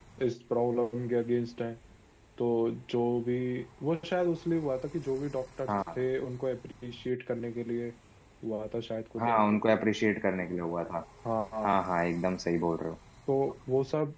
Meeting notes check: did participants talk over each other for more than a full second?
No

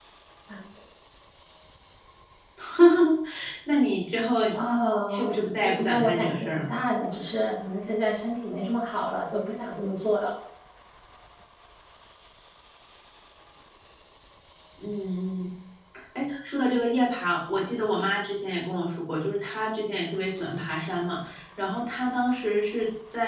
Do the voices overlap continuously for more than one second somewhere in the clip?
Yes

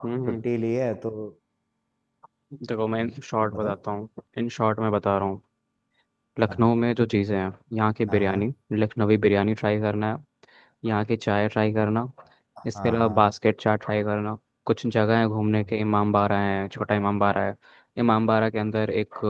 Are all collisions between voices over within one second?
Yes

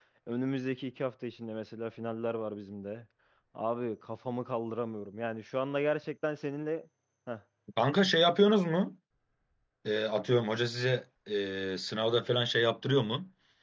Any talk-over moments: No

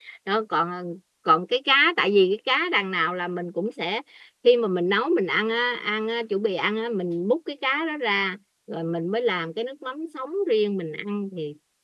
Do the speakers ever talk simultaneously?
No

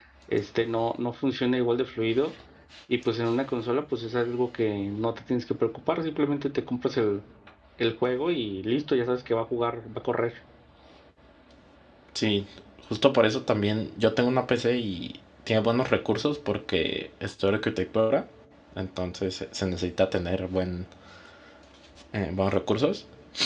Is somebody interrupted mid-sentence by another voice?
No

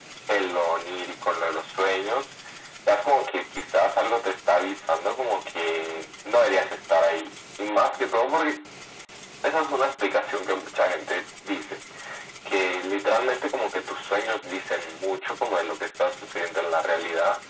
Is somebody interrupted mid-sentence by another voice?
No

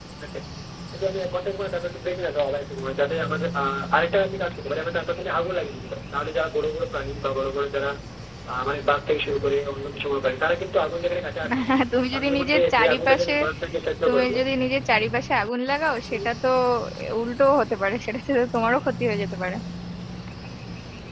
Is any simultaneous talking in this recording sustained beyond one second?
Yes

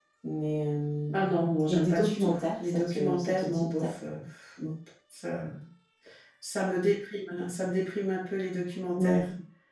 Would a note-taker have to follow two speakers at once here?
Yes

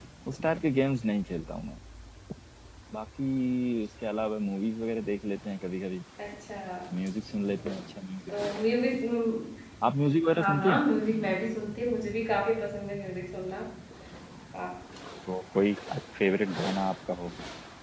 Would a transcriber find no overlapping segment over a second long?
Yes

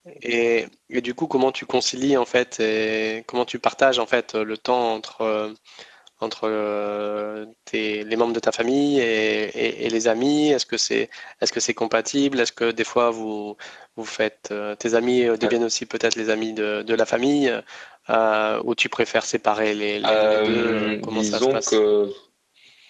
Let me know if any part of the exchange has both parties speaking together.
Yes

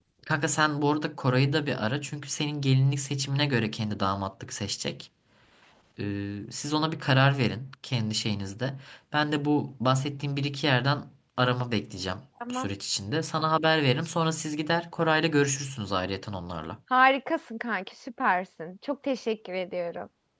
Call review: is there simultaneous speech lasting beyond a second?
No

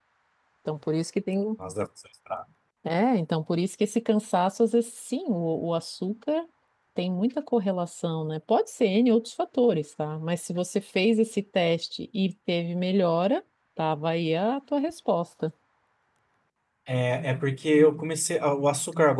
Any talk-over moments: No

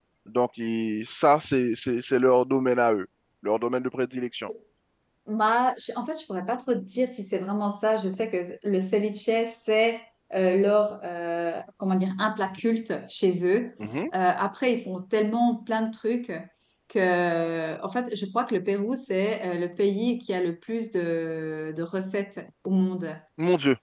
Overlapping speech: No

